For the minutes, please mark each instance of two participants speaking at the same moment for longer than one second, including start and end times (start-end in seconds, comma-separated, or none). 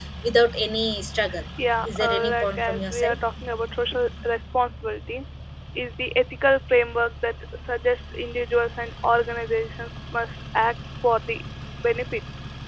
1.9-3.1